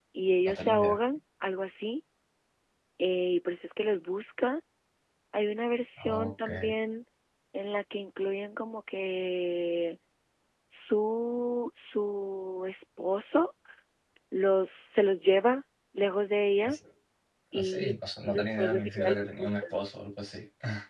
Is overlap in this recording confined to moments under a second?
No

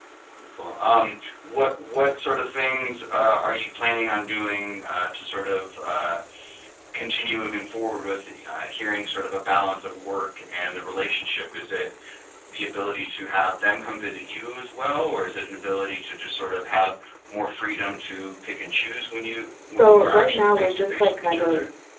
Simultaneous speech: Yes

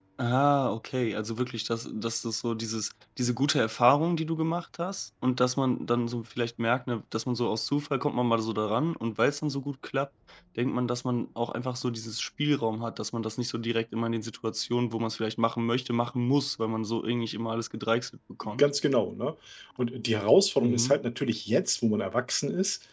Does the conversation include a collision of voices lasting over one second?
No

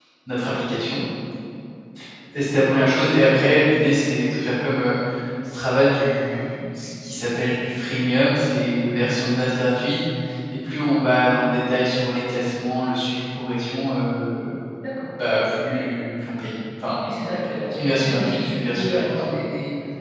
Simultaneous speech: Yes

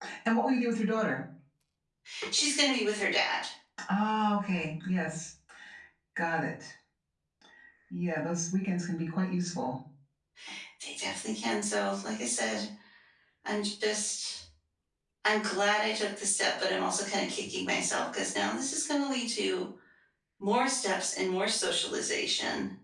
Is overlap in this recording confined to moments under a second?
Yes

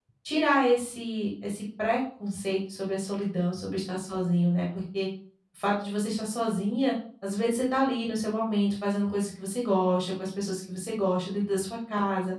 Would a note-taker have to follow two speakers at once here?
No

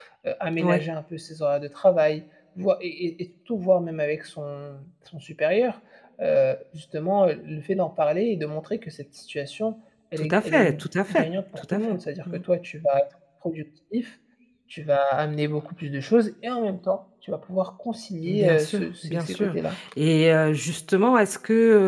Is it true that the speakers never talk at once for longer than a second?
No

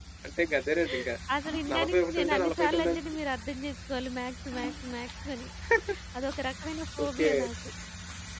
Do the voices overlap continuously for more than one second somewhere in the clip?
Yes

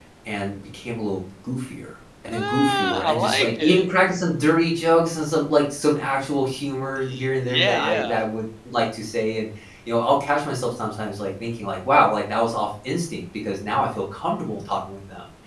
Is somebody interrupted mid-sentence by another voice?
Yes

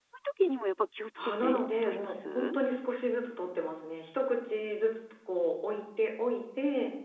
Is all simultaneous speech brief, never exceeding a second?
No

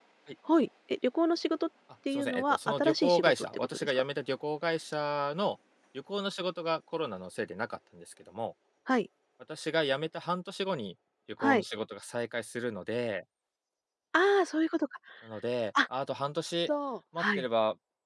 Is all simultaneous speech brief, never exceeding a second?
No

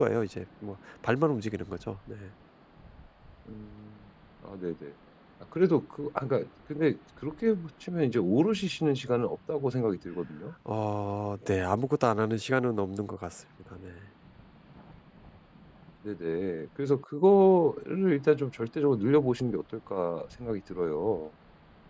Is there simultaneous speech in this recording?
No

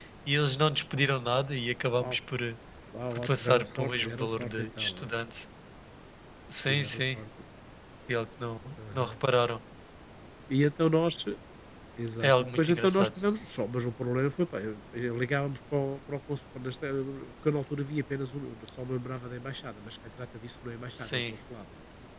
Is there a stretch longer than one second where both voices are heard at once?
Yes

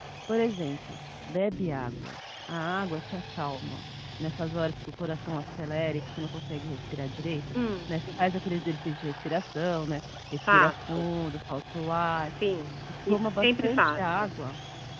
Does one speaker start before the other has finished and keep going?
Yes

